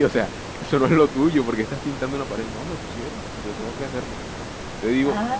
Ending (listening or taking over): taking over